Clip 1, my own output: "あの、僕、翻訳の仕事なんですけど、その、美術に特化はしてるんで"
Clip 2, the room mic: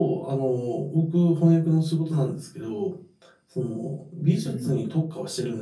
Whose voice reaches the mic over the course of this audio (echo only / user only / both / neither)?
both